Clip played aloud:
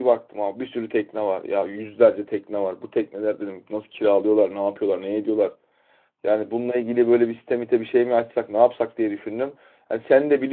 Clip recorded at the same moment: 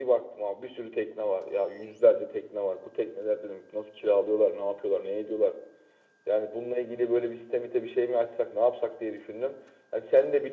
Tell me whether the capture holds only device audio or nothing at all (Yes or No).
Yes